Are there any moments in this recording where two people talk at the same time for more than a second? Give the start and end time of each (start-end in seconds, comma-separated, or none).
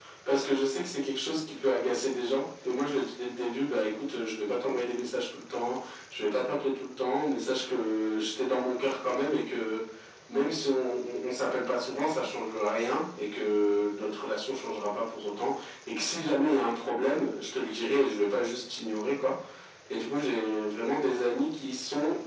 none